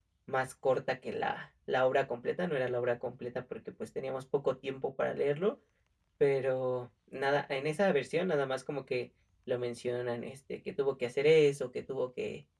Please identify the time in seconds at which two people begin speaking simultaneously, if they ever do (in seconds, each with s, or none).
none